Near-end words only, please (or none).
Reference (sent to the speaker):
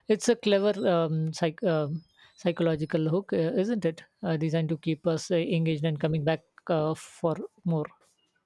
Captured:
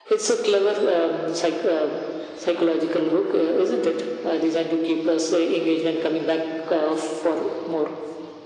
none